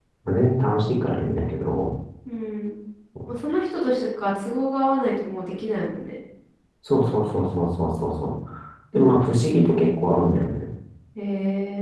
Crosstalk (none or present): none